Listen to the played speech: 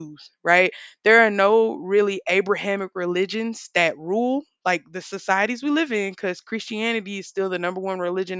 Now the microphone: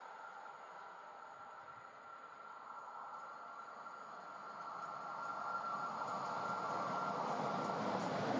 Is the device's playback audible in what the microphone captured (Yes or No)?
No